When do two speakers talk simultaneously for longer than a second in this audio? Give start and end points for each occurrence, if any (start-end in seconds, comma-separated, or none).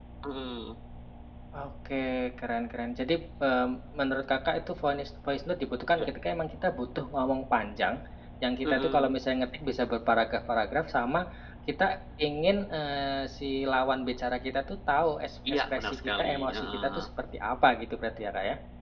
15.5-17.1